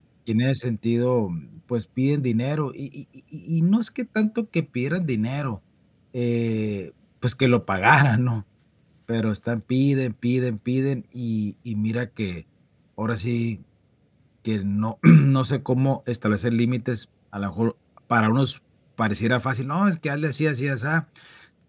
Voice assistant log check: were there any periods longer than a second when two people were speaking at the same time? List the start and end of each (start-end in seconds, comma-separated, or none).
none